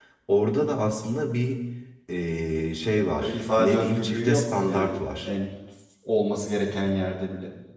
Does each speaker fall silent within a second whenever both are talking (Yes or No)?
No